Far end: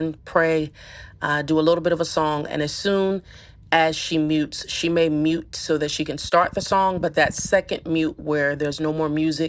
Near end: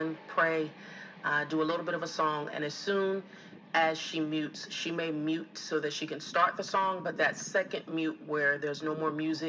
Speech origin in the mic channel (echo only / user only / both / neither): echo only